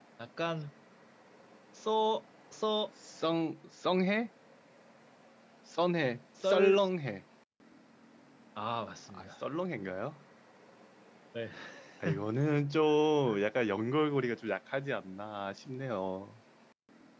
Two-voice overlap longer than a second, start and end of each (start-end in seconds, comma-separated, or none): none